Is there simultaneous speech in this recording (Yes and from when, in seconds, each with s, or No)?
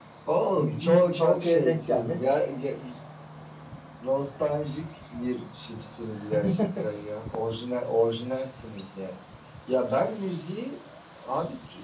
Yes, from 0.5 s